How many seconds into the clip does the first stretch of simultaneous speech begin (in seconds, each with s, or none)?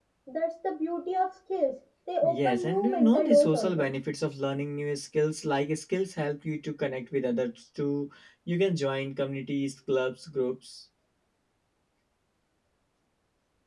2.2 s